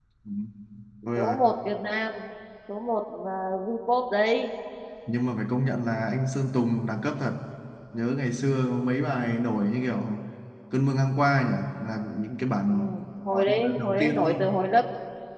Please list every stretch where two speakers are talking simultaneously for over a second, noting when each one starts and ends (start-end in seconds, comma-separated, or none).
13.3-14.6